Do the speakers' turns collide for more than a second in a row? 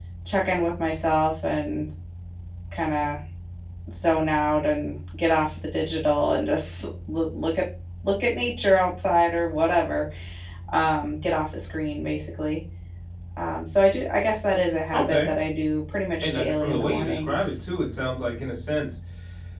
Yes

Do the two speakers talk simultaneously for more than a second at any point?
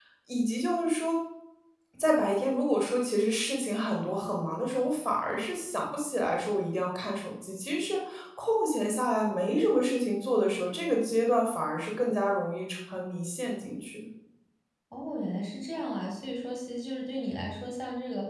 No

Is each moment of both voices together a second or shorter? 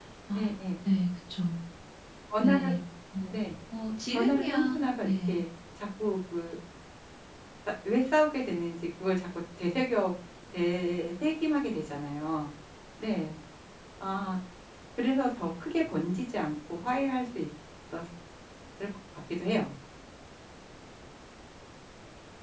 No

